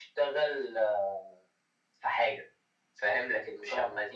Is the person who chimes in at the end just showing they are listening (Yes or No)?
Yes